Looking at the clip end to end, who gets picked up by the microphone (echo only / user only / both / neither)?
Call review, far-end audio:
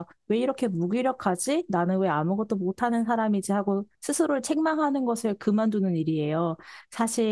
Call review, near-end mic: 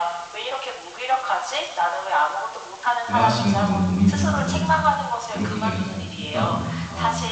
both